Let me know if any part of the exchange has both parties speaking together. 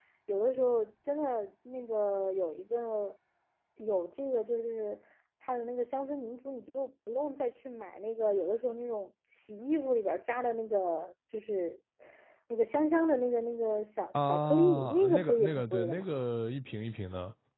Yes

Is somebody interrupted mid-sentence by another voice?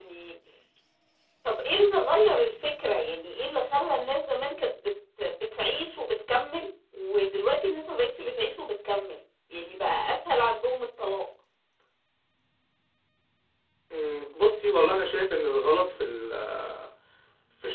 No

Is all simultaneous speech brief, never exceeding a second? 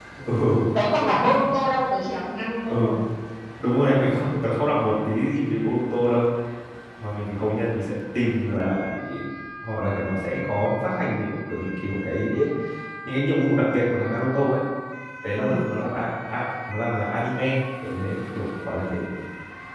Yes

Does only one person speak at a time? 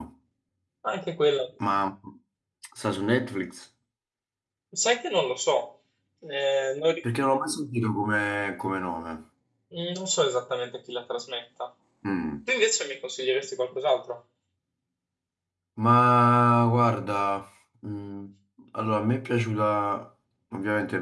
Yes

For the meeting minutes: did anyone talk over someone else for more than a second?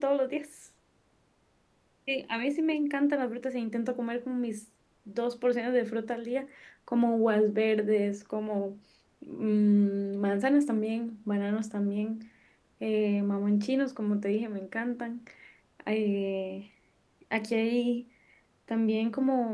No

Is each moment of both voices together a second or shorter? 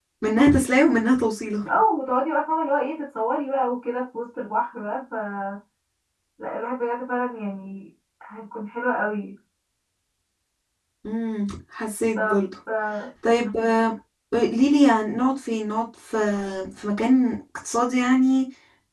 Yes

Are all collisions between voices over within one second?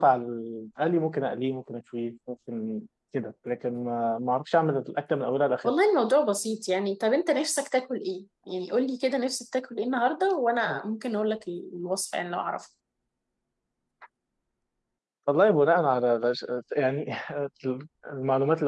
Yes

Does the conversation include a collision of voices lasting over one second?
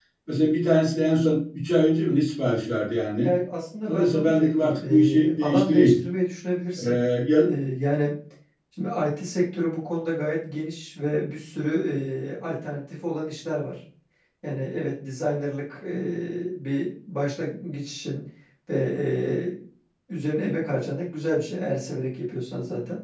Yes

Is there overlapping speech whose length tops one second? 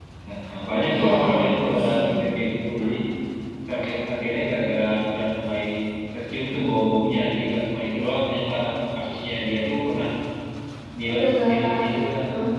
Yes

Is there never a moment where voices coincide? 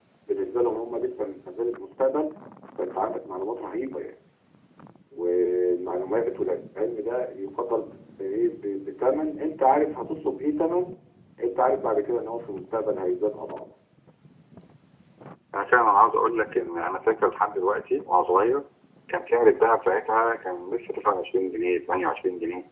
Yes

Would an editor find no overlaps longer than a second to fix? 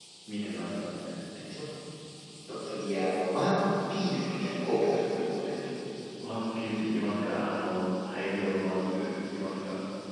Yes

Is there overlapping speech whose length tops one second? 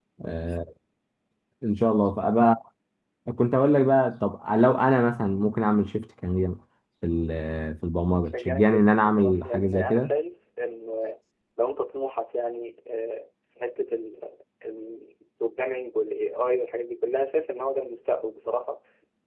Yes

